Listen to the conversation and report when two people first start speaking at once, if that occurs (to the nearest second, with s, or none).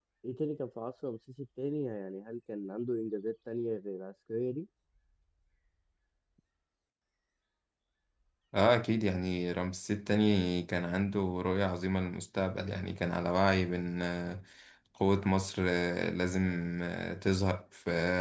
none